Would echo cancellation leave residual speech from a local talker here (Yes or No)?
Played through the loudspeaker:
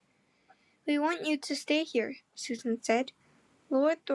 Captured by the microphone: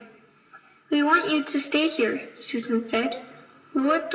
No